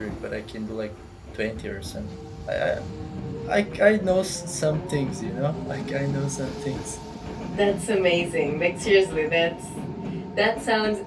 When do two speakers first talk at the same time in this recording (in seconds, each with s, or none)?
none